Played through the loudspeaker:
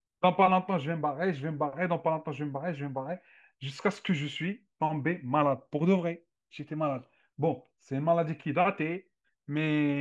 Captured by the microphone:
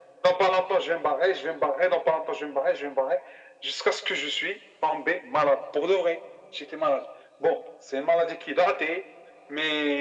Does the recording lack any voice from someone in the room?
Yes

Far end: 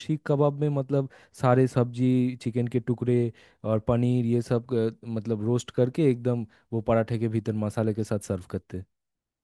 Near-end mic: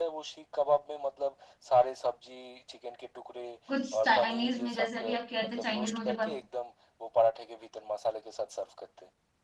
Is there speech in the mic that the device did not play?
Yes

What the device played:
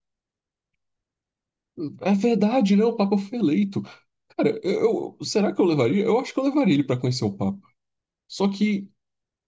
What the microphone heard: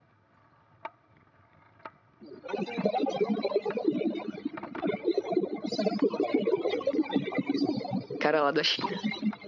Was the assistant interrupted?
Yes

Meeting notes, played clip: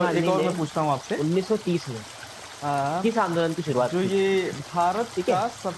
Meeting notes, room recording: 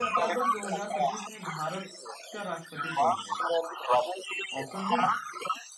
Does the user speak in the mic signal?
Yes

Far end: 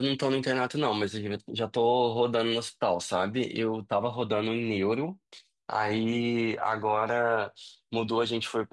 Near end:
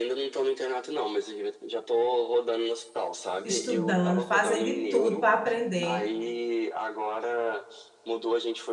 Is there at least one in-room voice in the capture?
Yes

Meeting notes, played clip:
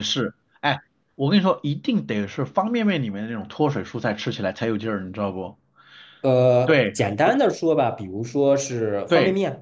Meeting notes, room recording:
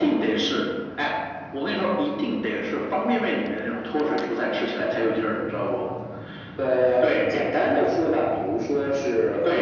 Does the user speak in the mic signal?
No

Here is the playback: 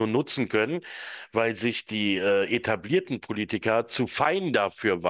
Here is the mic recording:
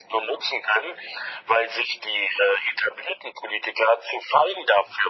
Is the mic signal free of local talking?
Yes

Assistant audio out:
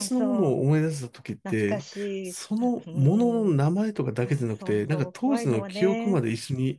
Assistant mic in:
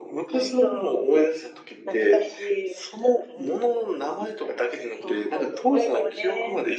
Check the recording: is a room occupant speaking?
No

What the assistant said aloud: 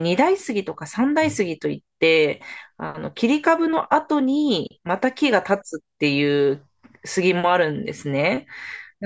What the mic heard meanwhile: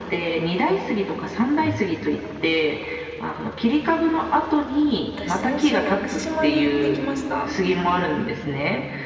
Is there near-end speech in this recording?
Yes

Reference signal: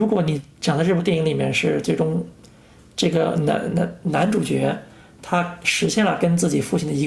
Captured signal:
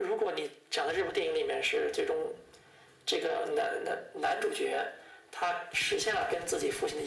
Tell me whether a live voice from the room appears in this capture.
No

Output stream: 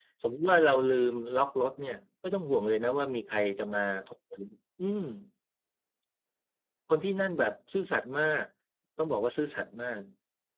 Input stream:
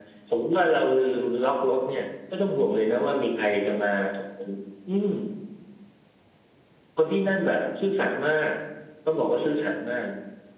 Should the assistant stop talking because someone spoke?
No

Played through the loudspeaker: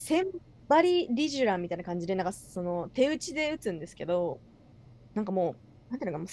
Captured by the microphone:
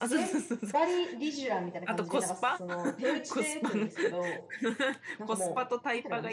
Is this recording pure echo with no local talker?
No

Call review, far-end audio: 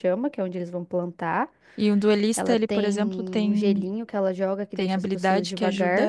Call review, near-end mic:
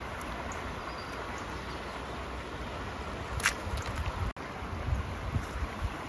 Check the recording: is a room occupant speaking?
No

